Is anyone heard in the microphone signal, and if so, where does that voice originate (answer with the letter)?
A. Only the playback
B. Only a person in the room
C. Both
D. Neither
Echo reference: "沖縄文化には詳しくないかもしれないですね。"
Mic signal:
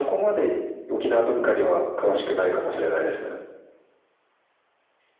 A